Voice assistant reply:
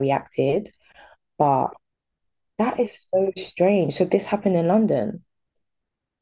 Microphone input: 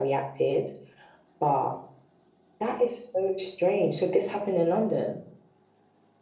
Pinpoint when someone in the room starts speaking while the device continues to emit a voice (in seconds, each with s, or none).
none